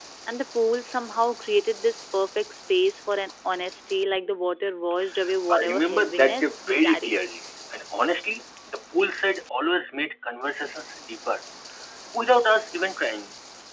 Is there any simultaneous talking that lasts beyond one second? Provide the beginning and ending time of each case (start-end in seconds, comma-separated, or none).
5.5-7.2